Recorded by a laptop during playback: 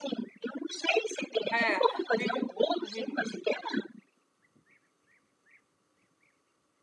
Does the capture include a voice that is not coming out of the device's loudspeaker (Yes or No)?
Yes